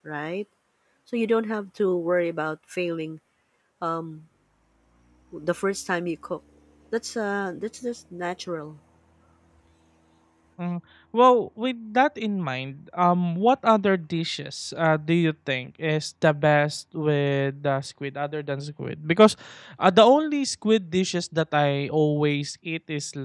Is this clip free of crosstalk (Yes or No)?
Yes